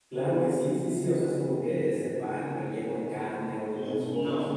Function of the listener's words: taking over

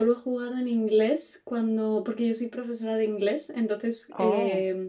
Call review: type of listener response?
listening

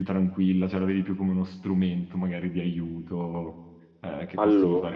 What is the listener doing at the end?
taking over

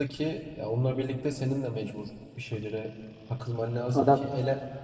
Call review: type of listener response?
listening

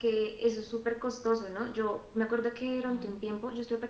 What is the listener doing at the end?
listening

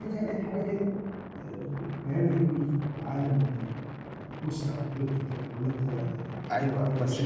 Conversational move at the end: taking over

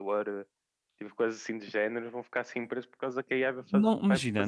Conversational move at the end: taking over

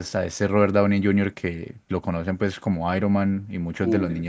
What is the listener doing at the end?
listening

